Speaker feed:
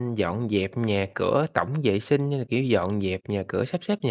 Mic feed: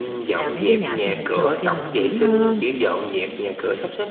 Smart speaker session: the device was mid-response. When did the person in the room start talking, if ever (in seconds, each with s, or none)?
0.3 s